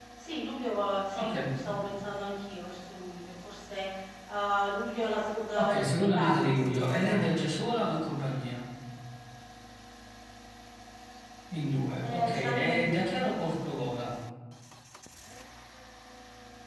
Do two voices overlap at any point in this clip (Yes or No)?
Yes